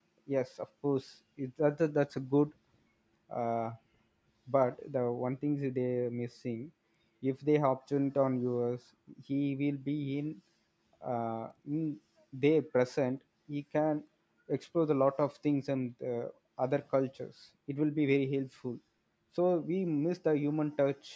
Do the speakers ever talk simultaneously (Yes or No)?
No